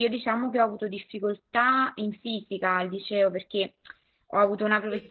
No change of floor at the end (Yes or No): Yes